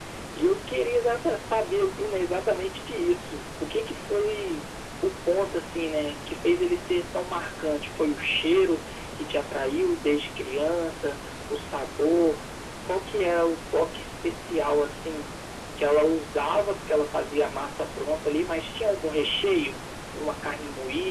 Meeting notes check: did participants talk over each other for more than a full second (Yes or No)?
No